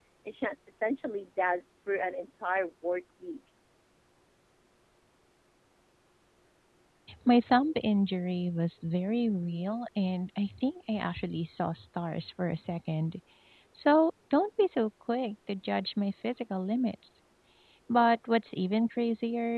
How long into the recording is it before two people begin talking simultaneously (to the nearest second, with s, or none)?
none